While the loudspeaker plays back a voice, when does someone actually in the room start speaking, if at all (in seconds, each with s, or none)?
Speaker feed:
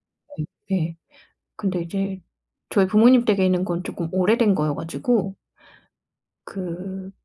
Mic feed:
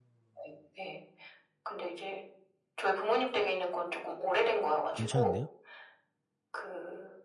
4.9 s